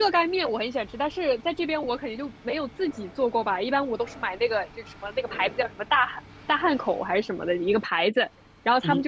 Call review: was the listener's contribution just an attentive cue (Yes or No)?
Yes